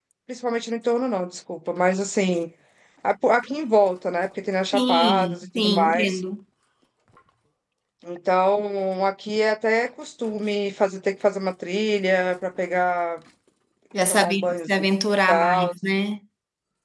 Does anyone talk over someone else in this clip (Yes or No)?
Yes